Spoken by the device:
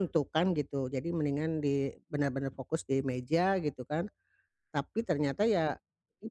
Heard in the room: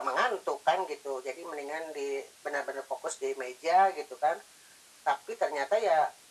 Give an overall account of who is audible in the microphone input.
echo only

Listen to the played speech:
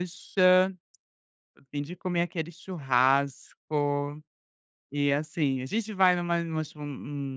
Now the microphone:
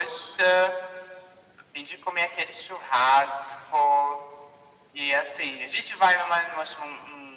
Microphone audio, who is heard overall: echo only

